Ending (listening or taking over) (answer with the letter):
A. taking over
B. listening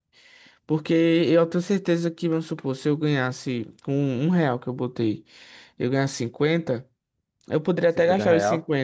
B